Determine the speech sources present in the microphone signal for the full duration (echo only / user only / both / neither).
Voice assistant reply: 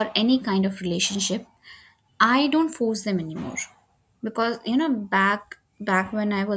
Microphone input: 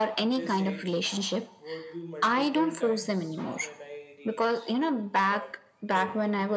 both